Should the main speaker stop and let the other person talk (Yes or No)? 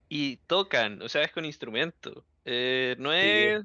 No